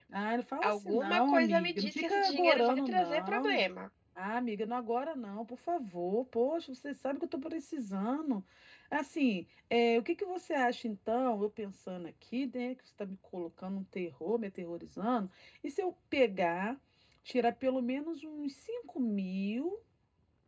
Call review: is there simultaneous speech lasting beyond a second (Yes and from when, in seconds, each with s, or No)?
Yes, from 0.6 s